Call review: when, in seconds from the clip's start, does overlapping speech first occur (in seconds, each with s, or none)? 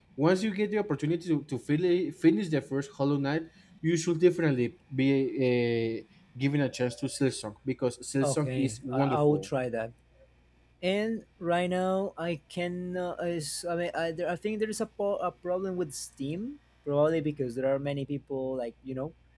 8.2 s